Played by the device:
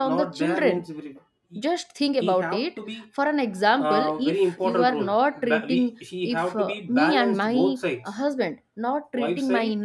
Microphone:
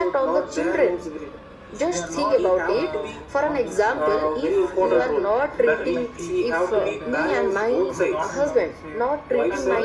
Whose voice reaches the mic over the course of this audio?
both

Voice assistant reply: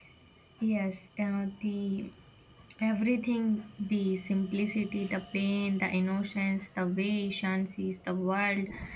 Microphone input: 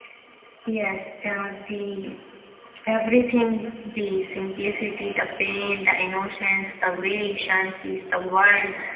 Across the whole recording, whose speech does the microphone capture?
echo only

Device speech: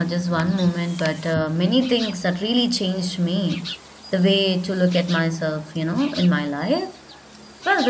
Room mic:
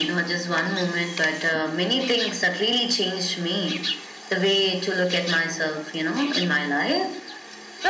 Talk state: echo only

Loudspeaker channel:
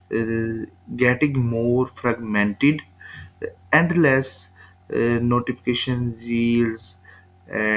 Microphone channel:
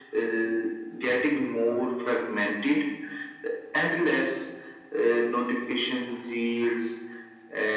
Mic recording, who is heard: echo only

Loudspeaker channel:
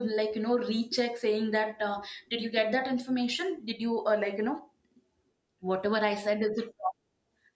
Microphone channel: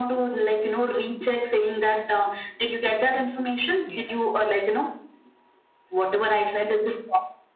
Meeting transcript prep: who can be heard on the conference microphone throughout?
both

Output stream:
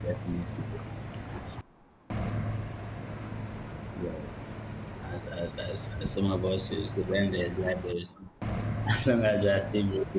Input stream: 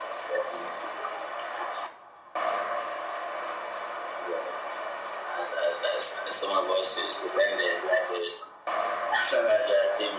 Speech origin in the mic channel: echo only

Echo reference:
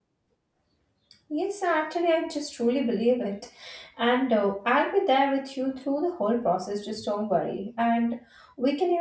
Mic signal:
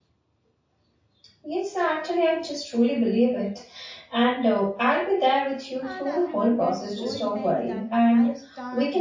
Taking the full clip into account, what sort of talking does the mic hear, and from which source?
both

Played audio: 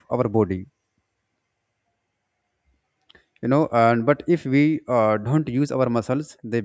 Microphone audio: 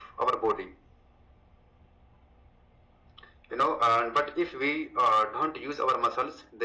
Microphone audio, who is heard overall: echo only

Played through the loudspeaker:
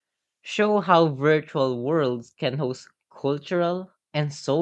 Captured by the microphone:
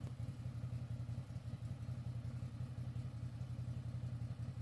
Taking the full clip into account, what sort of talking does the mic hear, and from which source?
neither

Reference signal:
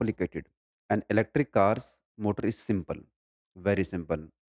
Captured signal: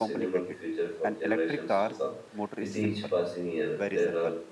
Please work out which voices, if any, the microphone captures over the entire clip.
both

